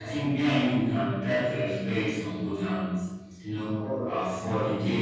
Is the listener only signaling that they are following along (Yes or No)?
Yes